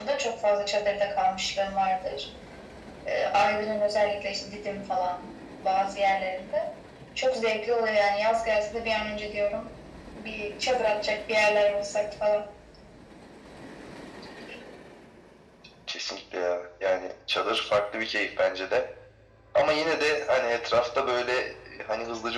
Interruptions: none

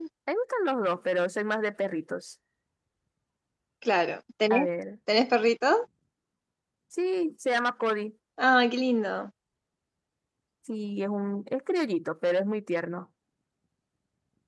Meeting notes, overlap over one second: none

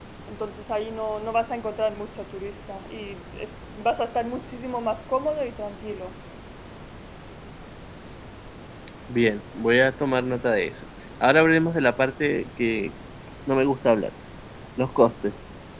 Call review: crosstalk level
none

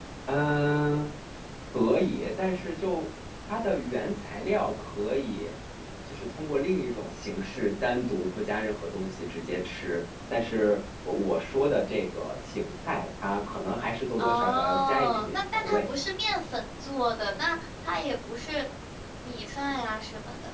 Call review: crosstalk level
present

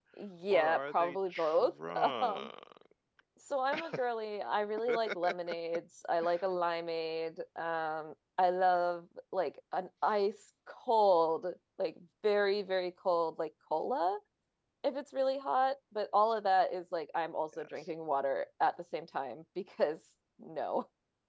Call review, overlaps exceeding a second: present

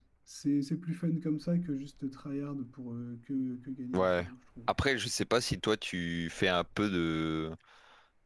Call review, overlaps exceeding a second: none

